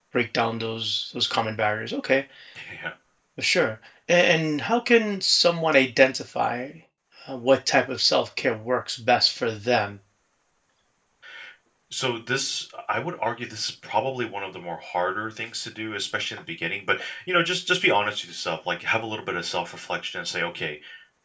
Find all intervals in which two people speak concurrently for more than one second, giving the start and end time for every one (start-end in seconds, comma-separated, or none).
none